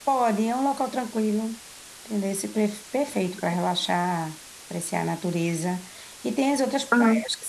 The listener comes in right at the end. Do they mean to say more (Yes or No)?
No